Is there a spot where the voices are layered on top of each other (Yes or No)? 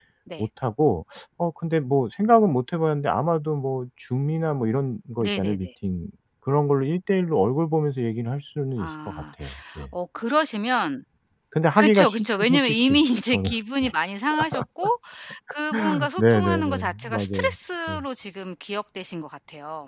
Yes